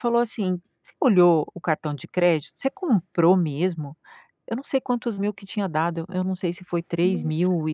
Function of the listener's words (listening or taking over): listening